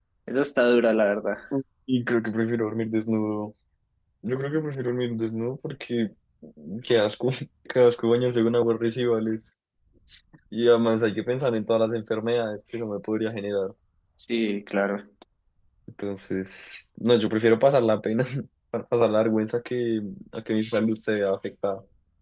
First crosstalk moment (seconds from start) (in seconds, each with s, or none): none